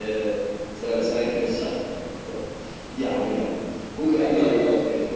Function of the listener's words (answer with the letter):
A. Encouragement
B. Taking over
A